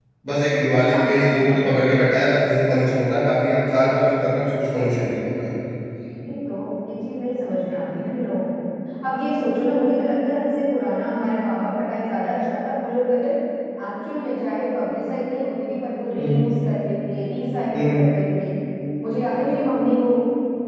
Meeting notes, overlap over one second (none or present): present